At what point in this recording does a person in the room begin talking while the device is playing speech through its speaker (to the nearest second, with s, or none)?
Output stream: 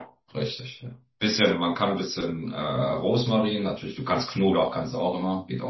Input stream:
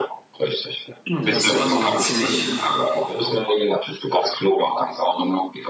1 s